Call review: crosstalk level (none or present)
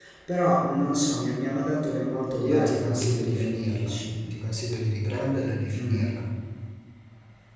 present